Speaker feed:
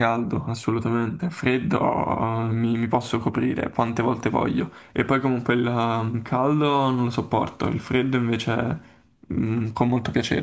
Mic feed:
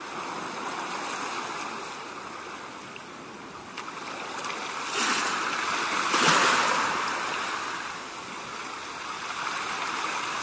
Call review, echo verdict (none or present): none